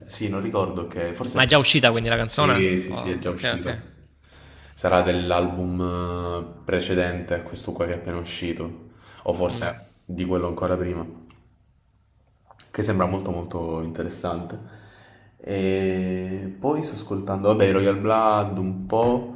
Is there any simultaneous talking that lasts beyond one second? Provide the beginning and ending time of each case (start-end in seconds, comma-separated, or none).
2.2-3.8